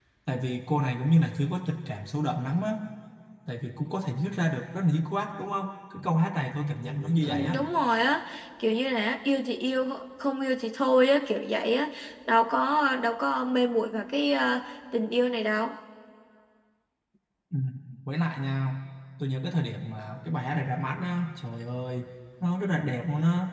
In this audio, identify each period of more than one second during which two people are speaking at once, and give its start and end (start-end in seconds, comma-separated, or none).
none